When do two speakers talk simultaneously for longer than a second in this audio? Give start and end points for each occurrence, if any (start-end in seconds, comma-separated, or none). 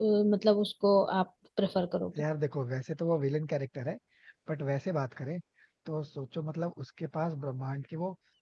none